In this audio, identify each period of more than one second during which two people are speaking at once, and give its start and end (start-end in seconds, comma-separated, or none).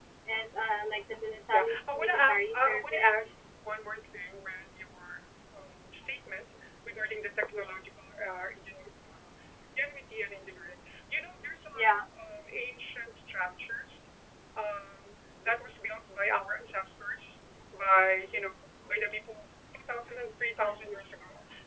1.5-3.3